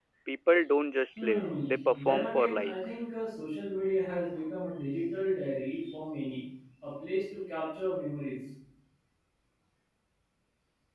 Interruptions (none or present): present